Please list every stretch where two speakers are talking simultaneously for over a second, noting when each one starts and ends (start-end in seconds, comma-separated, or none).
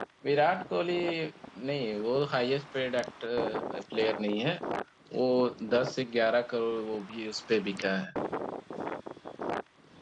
none